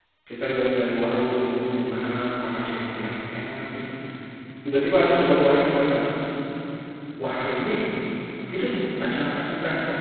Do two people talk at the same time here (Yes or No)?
No